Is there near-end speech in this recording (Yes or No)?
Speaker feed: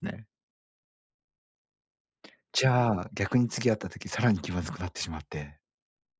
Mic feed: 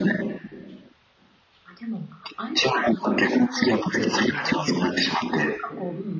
Yes